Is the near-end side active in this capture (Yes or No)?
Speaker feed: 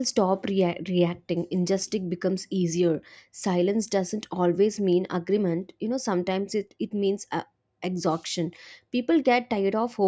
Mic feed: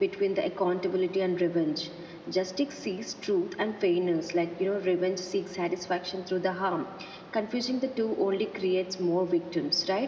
Yes